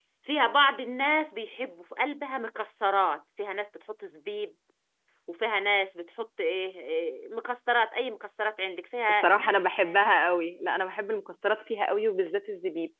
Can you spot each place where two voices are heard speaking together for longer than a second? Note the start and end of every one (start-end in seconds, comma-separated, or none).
none